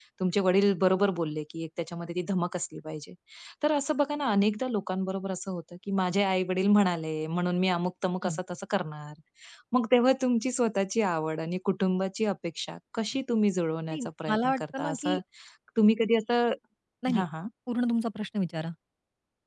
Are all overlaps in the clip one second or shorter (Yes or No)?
No